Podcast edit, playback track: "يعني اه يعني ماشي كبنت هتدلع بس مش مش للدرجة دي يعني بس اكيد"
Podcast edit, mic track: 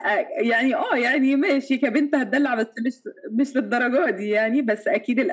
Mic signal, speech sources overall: echo only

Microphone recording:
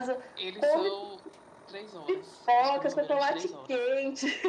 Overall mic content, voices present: both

